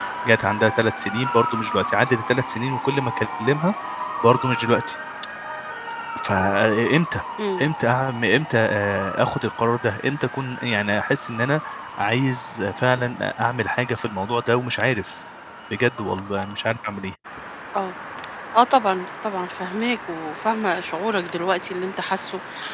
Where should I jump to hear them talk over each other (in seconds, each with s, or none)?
none